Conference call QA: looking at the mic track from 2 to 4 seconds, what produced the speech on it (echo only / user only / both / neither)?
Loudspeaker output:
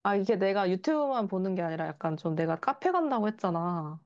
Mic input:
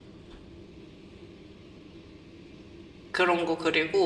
user only